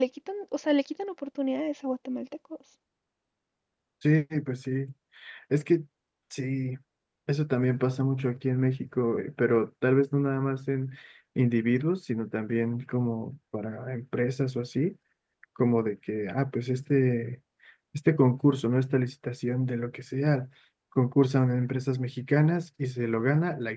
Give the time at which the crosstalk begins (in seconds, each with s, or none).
none